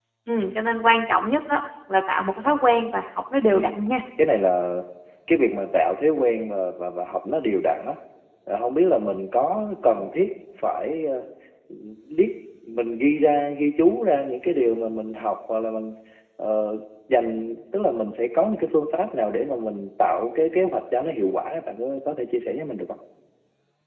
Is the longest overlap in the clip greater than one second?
No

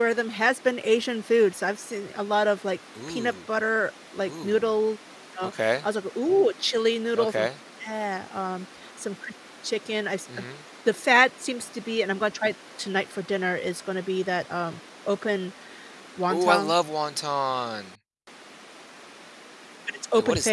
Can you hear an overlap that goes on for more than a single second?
No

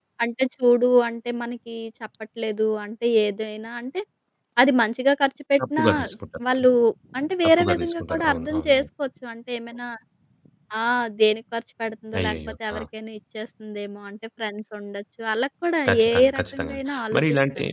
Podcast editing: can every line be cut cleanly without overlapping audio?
No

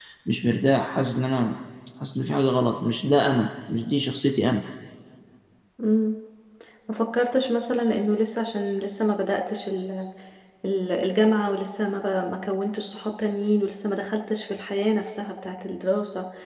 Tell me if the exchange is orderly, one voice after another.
Yes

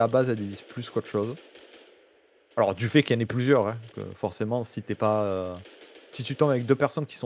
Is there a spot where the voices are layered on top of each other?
No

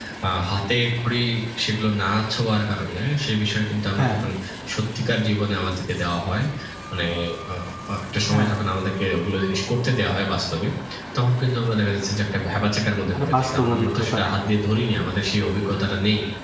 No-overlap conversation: No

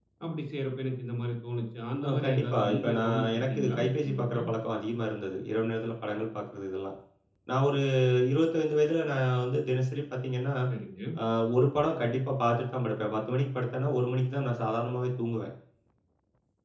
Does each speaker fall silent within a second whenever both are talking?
No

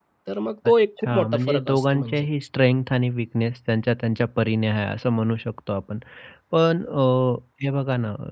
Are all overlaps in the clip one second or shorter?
No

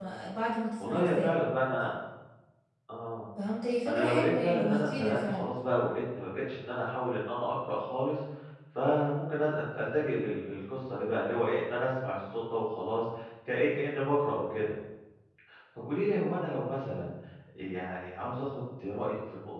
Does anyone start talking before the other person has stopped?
Yes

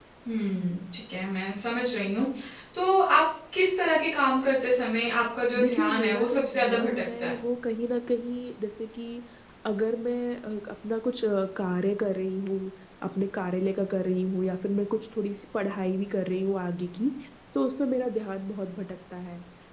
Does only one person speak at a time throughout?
No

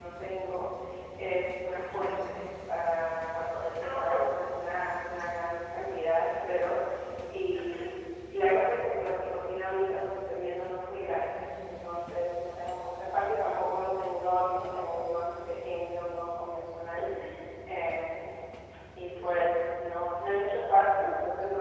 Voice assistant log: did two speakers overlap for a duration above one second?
No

